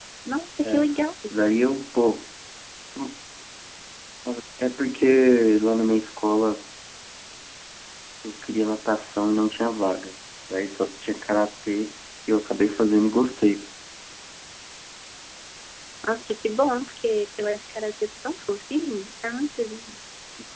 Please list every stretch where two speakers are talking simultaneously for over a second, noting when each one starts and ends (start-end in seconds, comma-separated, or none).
none